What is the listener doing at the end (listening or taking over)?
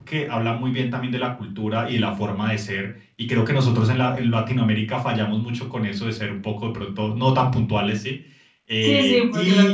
taking over